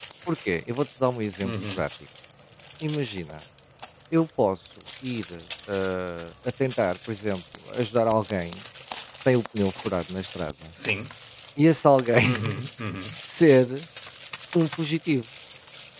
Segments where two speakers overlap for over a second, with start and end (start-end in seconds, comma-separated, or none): none